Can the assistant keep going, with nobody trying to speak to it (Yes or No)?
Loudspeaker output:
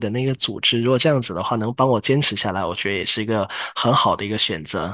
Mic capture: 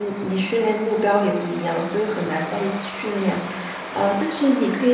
No